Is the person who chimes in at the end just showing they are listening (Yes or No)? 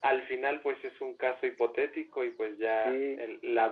Yes